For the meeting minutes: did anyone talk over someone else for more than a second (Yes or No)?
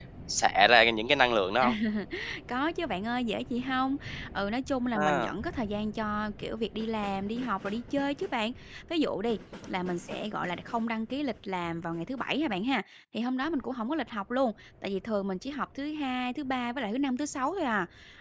No